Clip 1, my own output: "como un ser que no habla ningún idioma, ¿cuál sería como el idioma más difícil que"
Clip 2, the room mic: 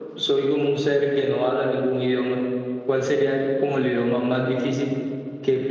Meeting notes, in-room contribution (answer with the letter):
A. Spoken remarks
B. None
B